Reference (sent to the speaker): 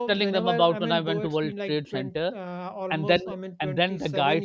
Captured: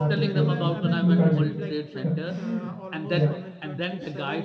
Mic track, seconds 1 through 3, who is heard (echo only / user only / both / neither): both